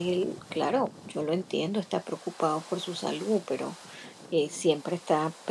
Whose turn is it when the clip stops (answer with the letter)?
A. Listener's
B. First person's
B